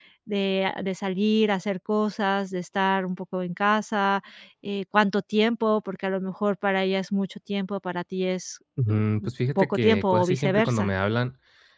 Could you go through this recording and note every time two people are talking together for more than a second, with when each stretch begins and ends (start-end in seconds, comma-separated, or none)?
9.6-10.9